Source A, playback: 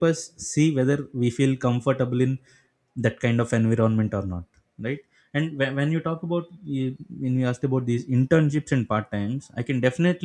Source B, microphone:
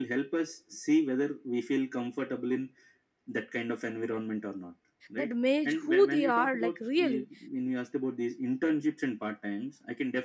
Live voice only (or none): that match who they are like really